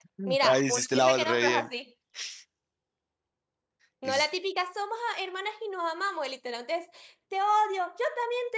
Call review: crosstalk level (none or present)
present